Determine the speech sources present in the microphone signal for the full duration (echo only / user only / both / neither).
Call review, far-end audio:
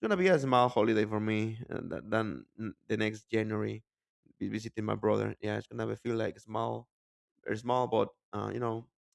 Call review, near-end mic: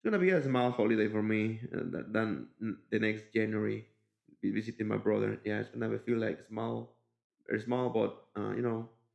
echo only